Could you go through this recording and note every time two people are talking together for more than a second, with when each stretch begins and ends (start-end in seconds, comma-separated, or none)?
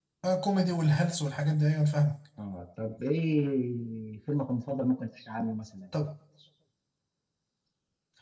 none